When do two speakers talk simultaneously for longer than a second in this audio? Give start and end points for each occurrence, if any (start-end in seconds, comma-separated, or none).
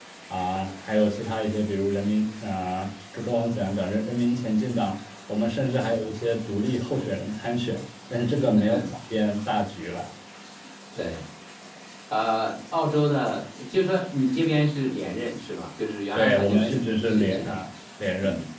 16.1-17.6